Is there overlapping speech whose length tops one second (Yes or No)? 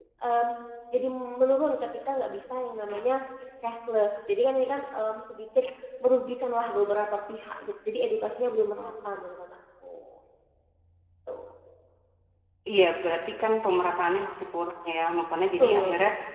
No